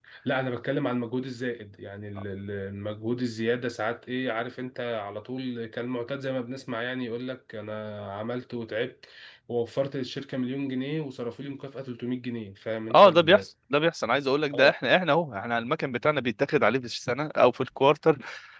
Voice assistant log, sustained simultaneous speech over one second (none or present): none